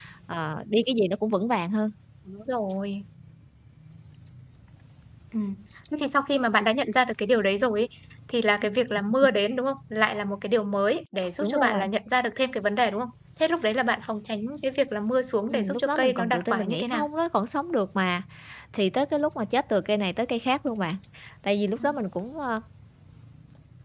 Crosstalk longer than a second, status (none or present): present